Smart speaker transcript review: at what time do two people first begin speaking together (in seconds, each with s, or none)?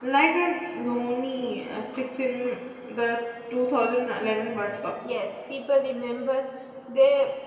none